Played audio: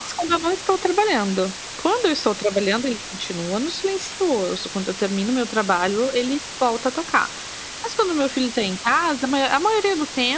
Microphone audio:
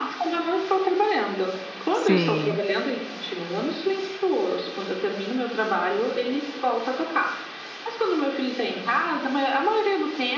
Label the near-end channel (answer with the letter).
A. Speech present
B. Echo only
A